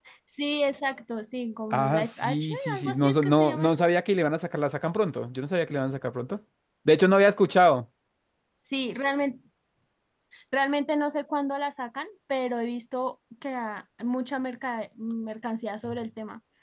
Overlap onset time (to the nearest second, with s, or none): 2 s